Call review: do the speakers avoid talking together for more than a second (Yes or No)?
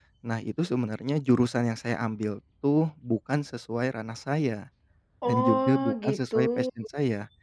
No